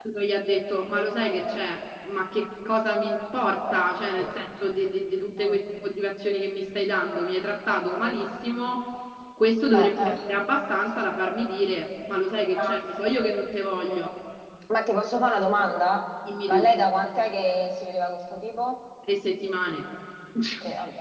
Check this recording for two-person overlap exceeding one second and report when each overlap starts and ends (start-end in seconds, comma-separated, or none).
none